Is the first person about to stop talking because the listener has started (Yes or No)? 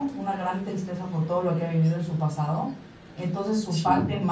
No